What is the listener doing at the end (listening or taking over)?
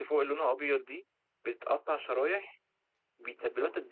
listening